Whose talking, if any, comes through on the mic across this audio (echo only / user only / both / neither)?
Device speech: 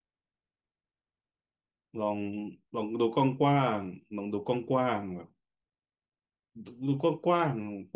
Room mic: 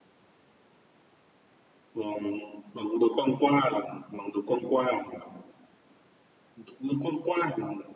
echo only